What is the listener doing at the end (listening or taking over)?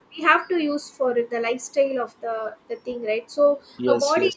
listening